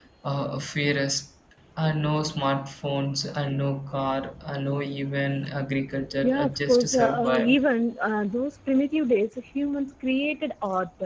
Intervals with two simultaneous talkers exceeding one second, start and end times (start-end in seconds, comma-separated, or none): 6.2-7.6